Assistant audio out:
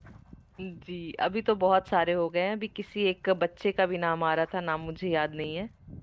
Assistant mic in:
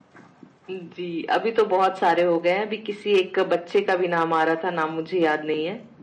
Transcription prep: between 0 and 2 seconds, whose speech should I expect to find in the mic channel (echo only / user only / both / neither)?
echo only